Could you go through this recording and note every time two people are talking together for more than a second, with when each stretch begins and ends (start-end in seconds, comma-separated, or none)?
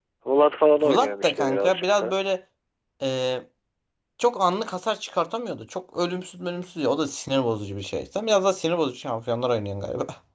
0.8-2.2